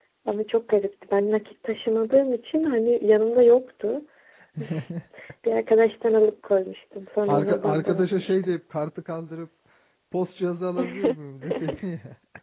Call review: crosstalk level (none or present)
present